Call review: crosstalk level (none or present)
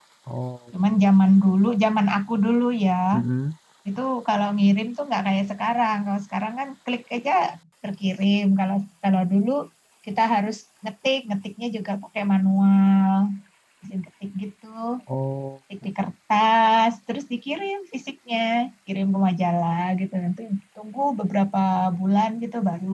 none